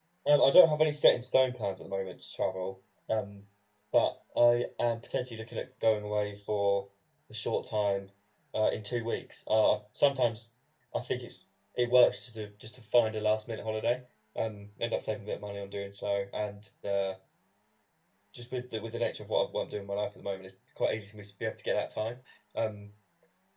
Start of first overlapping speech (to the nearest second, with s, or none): none